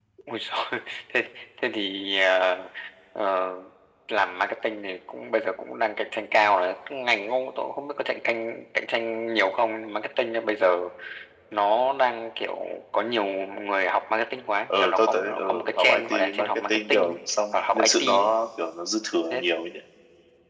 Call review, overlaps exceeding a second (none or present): present